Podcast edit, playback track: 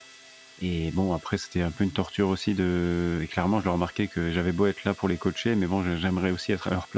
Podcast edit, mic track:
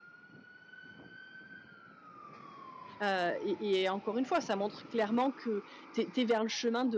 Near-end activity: present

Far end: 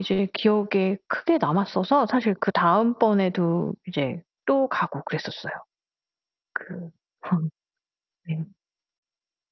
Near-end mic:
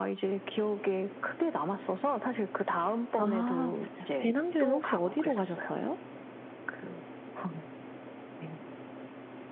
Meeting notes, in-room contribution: present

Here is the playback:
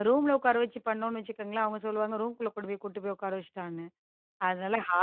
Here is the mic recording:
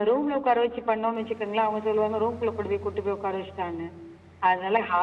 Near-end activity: none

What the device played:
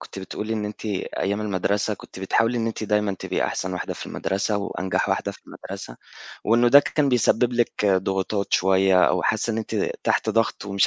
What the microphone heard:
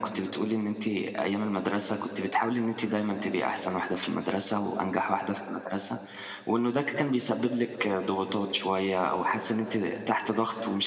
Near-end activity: none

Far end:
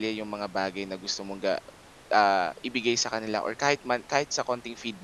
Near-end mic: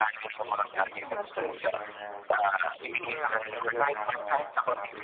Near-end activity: present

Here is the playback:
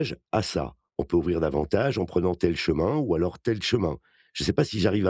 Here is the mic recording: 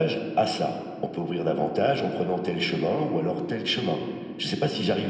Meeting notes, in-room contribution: none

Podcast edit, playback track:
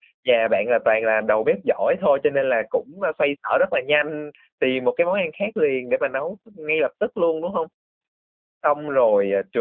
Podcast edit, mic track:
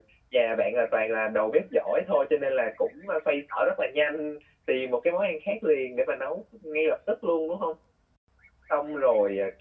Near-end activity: none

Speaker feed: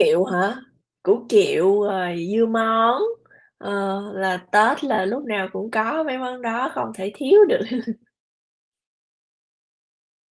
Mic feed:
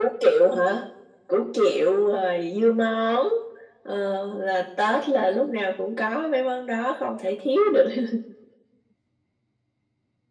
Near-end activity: none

